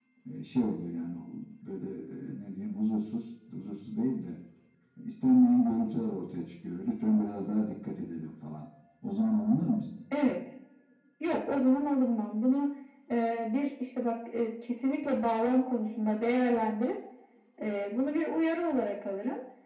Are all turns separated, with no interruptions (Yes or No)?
Yes